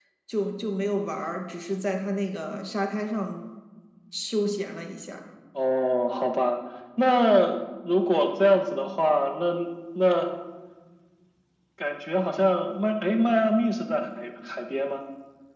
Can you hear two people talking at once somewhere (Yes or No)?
No